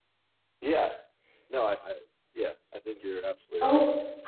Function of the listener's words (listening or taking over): taking over